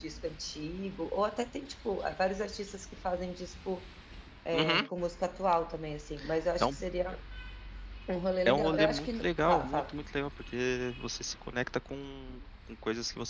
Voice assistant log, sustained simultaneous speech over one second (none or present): present